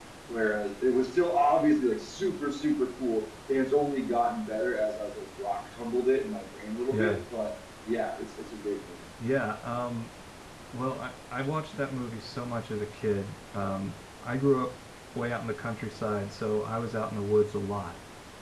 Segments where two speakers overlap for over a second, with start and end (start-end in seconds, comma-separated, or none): none